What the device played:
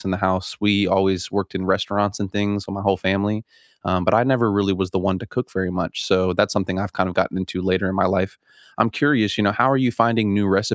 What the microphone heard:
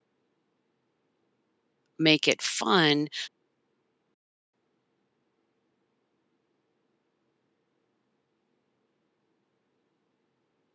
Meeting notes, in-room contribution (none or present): present